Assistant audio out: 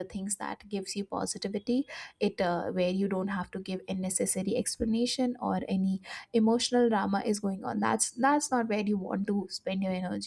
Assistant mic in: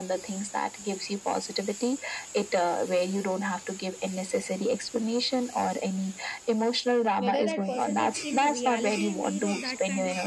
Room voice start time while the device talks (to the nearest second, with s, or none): 7 s